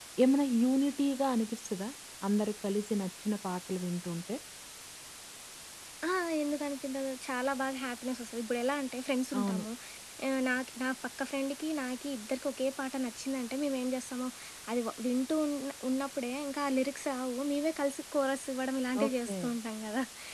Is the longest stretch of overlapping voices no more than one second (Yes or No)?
Yes